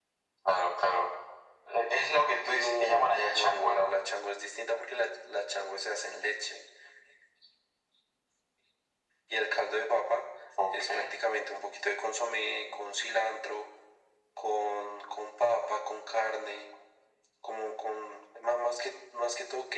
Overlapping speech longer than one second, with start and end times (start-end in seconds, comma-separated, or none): 2.5-3.9